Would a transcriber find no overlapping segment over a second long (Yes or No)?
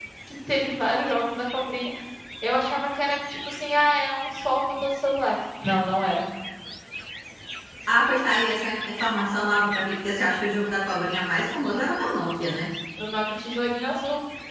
Yes